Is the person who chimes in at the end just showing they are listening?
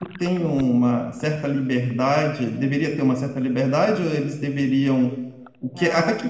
Yes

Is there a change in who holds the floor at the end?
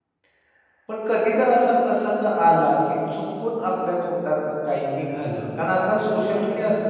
No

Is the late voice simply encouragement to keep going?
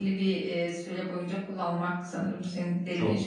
Yes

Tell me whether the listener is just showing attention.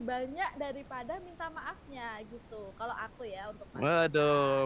No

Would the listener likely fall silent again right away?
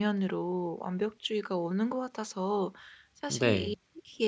Yes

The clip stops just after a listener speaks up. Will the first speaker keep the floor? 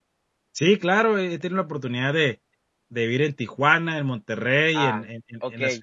No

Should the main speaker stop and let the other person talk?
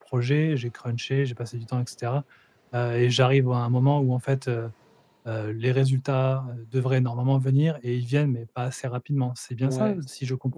Yes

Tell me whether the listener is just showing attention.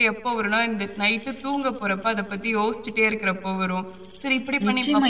No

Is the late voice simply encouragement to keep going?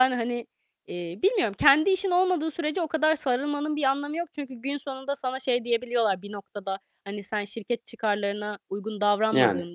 Yes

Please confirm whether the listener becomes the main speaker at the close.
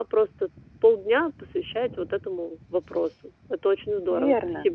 Yes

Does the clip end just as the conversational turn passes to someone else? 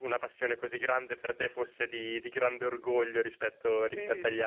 Yes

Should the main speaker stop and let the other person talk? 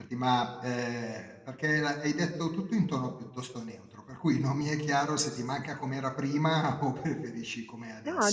Yes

